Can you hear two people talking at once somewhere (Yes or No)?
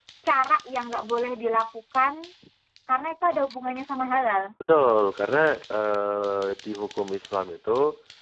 No